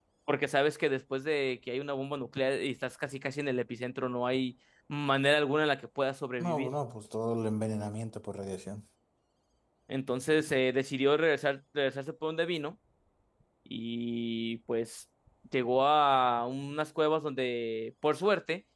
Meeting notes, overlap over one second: none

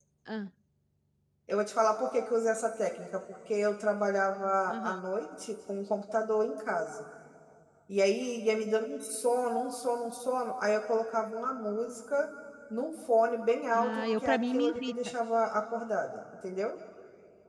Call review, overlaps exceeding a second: present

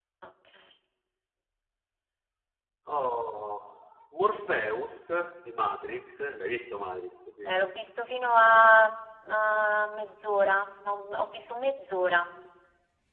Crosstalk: none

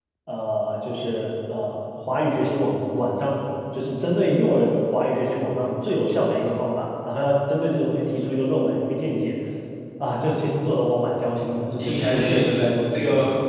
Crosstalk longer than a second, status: present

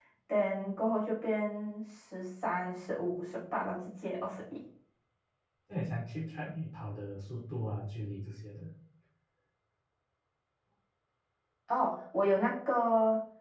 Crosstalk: none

